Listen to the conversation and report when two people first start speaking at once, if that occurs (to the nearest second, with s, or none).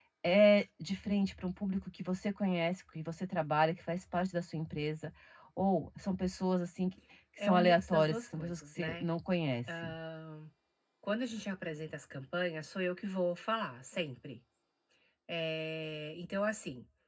7 s